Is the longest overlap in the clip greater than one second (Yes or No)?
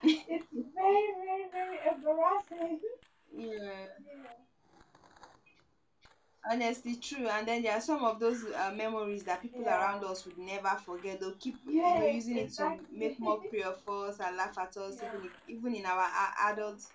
Yes